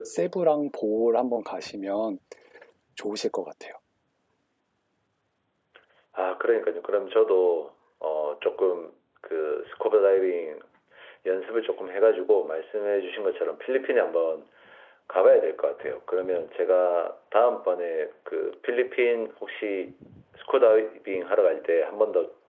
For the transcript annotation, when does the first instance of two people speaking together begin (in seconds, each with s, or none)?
none